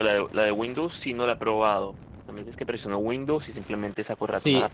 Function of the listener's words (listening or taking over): taking over